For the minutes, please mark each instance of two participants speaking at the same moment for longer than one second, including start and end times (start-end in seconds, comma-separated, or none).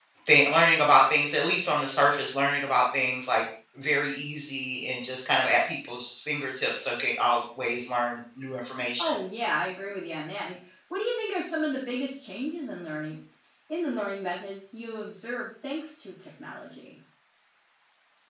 none